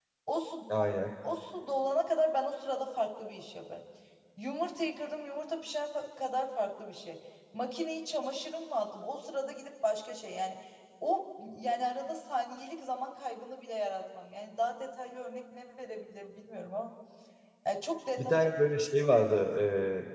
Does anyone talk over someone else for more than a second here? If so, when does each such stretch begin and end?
none

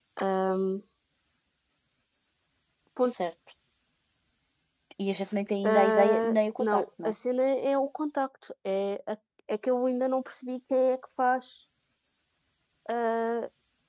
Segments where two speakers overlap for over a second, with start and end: 5.6-7.1

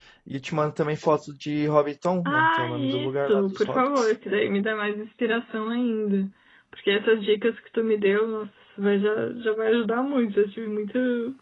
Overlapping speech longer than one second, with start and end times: 2.2-4.1

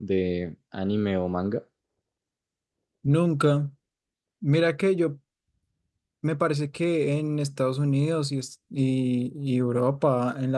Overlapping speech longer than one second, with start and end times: none

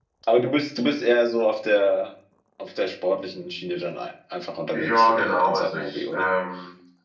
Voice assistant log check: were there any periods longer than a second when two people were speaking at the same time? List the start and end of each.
4.7-6.3

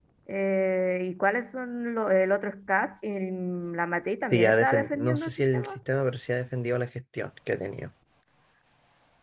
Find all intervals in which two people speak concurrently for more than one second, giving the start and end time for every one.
4.3-5.8

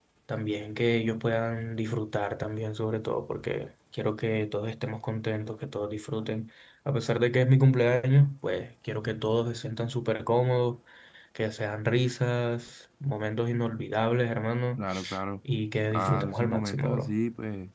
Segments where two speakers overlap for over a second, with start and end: 15.9-17.1

